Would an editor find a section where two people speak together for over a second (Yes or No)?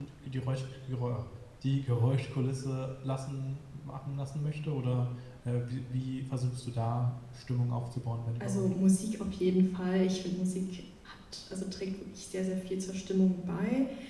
No